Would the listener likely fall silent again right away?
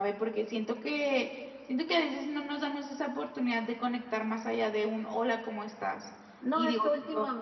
No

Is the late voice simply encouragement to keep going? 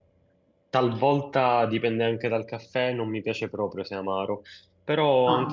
Yes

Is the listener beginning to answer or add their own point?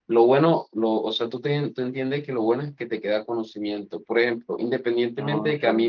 No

